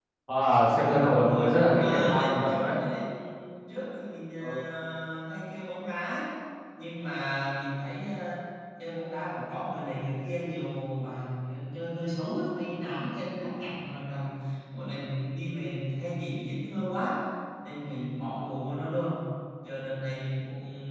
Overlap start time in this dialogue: 0.7 s

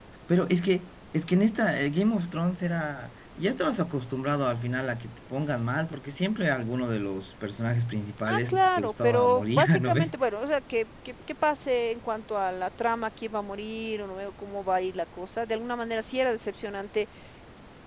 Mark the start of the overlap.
8.3 s

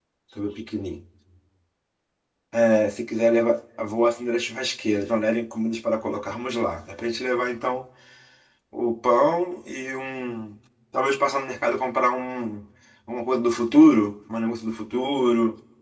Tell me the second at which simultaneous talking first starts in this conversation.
none

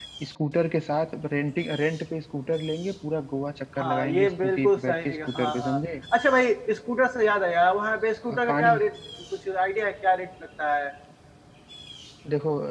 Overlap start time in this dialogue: 3.8 s

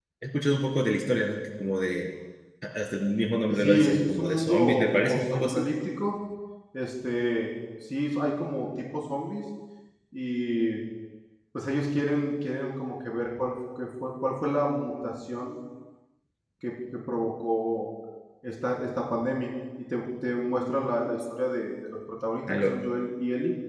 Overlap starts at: 3.5 s

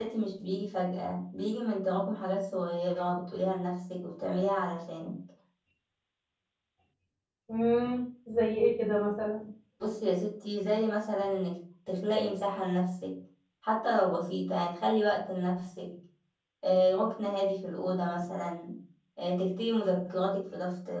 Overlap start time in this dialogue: none

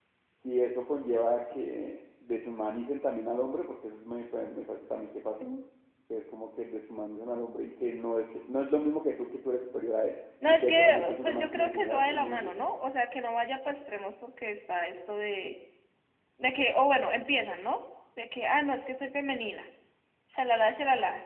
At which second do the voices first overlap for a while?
10.4 s

